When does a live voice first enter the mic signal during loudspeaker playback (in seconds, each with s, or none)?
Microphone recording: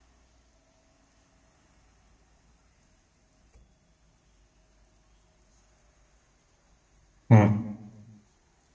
7.3 s